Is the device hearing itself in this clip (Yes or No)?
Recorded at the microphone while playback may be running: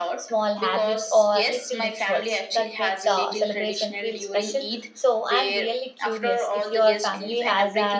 Yes